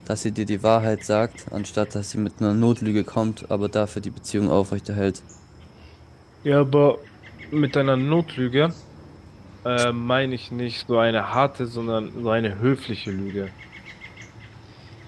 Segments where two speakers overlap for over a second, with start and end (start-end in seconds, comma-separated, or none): none